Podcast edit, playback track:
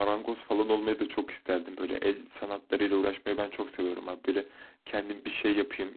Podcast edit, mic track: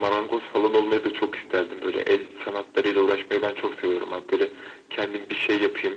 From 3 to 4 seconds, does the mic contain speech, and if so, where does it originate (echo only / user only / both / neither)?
echo only